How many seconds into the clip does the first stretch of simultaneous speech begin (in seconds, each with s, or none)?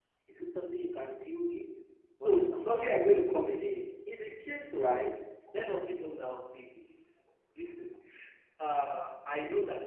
2.2 s